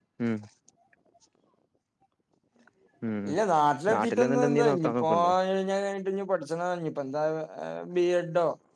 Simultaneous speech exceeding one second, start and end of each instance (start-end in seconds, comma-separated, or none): 3.9-5.3